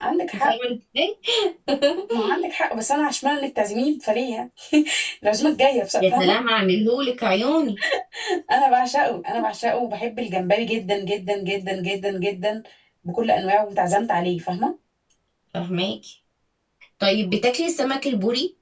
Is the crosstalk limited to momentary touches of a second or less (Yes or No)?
Yes